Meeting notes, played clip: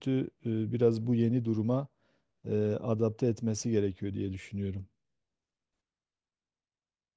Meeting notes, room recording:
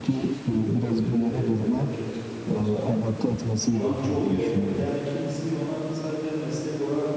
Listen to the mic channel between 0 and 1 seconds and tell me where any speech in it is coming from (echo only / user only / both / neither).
both